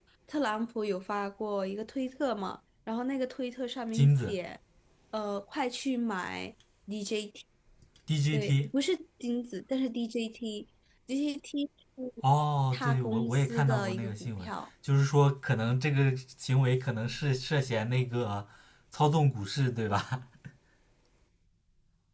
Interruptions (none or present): present